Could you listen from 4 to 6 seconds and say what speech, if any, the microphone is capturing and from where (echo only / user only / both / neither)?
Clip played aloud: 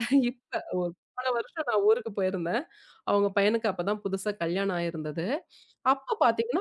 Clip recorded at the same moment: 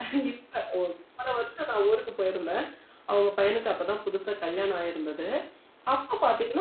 echo only